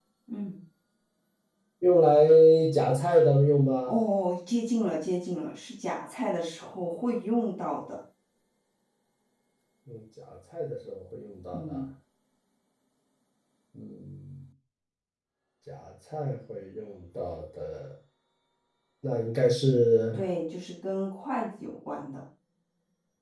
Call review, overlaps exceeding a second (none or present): none